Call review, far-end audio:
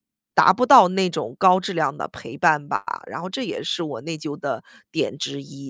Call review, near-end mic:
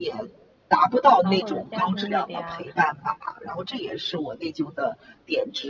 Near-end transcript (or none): 然后或者家庭里的呀，